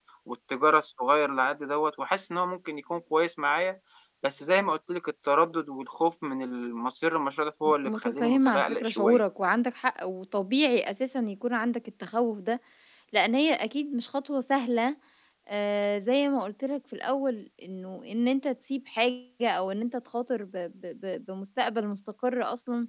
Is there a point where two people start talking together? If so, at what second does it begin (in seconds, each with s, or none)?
7.6 s